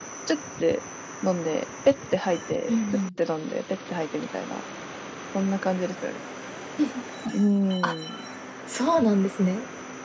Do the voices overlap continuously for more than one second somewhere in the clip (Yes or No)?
No